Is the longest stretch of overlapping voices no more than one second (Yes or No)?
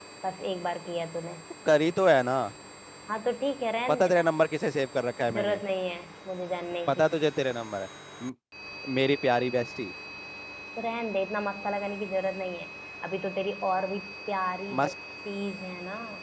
Yes